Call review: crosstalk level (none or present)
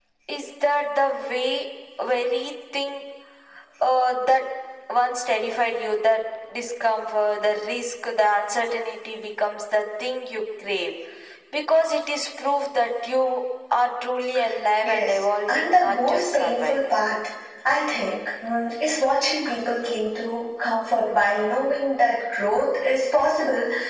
present